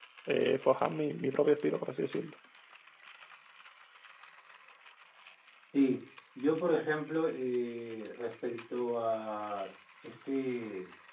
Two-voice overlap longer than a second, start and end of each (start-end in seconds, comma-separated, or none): none